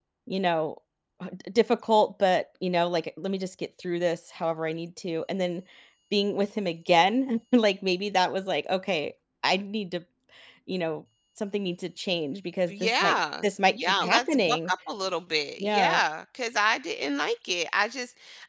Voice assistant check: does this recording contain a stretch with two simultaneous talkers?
Yes, from 12.7 s

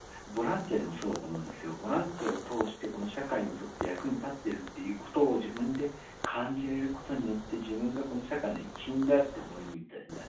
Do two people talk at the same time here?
No

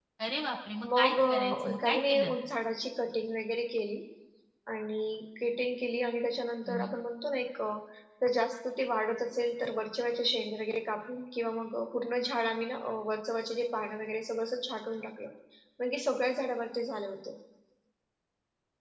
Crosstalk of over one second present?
Yes, from 1.0 s

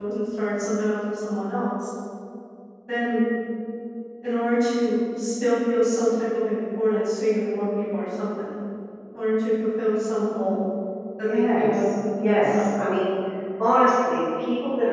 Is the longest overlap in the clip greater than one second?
Yes, from 11.3 s

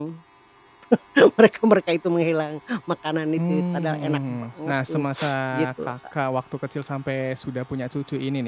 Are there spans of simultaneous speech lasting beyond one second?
Yes, from 3.4 s

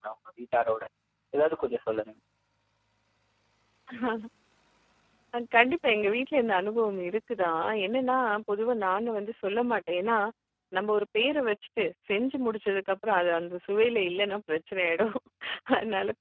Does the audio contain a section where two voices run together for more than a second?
No

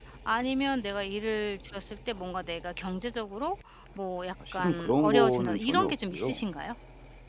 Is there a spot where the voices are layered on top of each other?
Yes, from 4.4 s

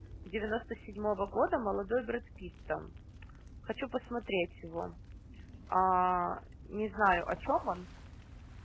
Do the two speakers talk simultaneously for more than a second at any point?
No

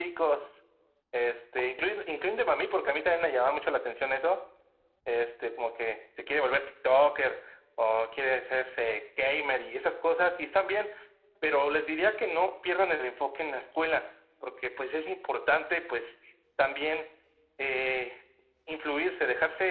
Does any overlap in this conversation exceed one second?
No

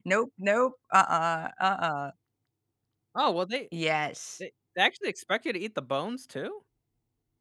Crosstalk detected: No

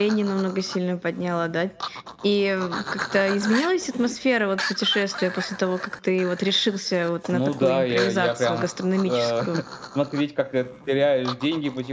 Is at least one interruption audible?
Yes, from 7.3 s

